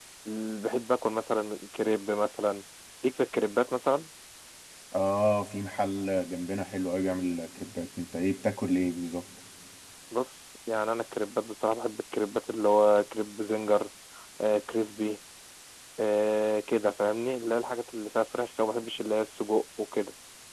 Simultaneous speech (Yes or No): No